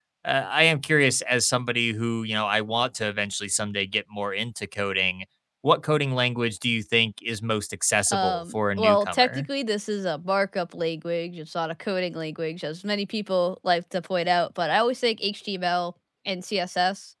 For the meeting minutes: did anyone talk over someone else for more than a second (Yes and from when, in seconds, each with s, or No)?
Yes, from 8.1 s